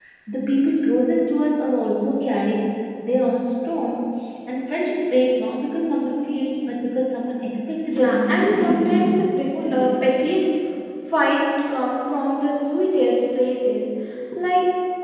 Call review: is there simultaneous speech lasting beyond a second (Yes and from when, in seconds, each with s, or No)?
Yes, from 7.9 s